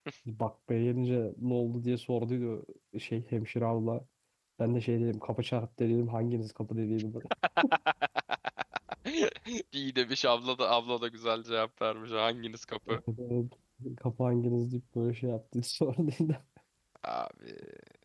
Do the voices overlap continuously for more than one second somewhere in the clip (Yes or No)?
No